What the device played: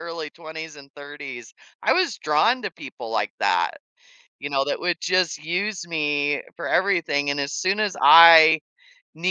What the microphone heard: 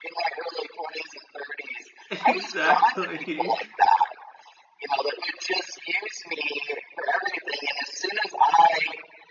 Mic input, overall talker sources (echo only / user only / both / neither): both